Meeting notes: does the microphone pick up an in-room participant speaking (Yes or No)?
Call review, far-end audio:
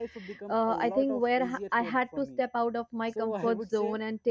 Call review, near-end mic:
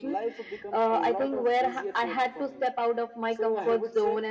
No